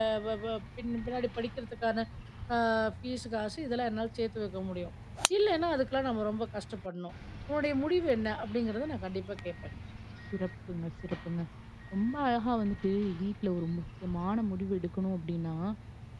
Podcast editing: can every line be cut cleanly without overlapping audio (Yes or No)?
Yes